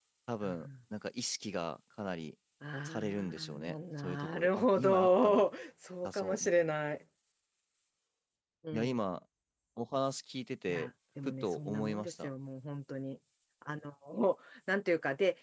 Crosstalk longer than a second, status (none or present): present